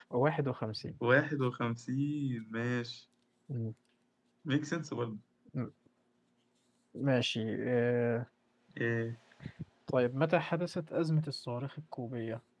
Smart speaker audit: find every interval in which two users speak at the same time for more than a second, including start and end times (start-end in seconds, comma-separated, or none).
none